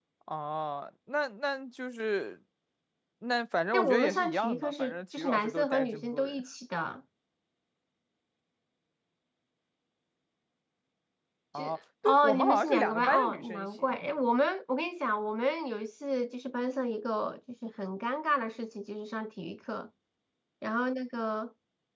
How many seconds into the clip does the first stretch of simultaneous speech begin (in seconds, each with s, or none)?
3.7 s